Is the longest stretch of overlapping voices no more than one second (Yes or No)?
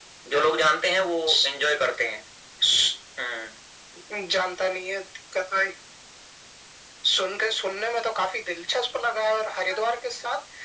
Yes